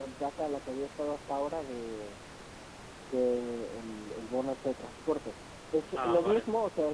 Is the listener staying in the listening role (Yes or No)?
Yes